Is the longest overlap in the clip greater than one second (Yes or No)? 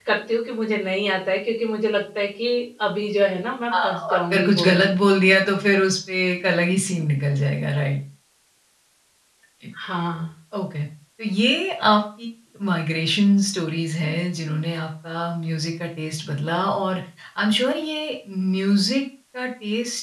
Yes